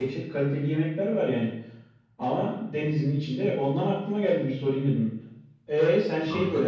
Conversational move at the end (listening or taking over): listening